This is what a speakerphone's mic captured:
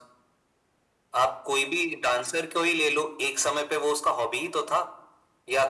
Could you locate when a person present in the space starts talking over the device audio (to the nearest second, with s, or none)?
none